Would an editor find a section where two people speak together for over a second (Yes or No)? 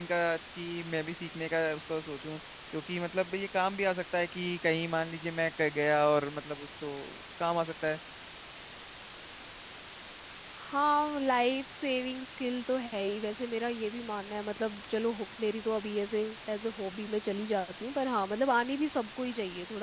No